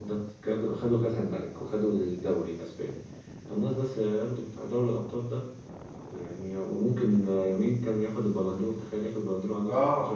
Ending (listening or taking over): taking over